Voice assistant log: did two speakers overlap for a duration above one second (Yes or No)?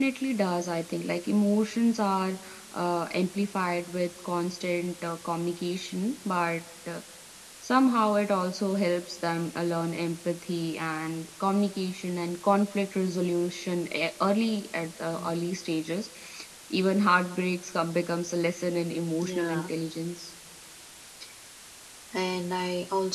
No